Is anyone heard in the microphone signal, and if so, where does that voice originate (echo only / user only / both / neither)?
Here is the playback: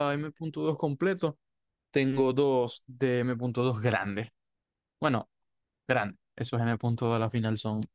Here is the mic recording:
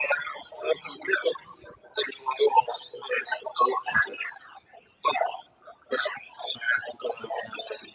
echo only